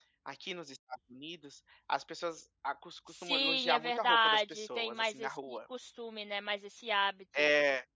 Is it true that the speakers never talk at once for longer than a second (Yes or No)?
No